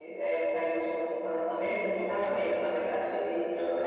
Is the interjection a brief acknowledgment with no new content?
Yes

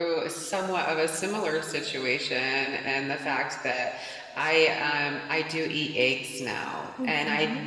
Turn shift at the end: No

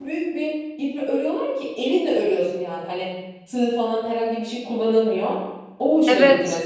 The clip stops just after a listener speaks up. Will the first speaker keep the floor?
No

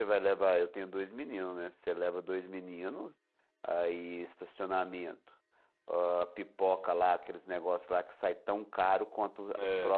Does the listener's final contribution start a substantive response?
No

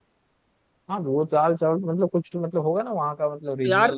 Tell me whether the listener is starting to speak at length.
Yes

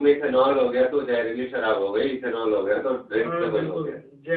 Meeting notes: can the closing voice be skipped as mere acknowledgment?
No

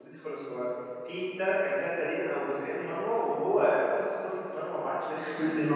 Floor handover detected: Yes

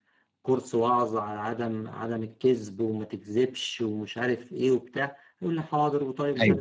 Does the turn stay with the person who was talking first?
Yes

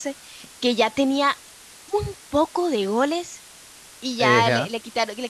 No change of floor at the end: Yes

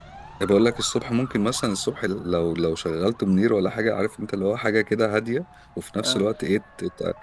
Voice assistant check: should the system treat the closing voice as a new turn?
No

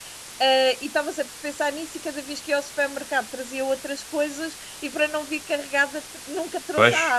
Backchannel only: No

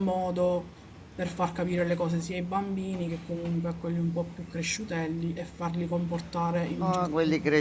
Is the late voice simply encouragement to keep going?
No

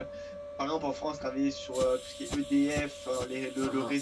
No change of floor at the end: Yes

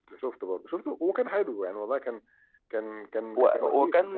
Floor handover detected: Yes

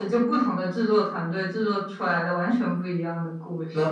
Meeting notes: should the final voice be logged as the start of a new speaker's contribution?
Yes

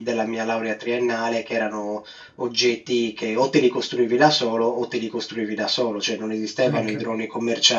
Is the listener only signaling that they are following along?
Yes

